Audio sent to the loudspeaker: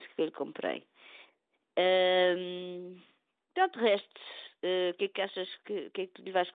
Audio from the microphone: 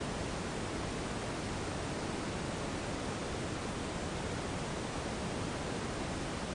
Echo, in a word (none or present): none